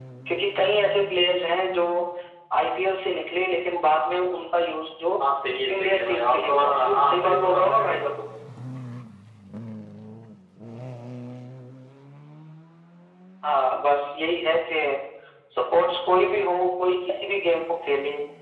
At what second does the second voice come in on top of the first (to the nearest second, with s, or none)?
6 s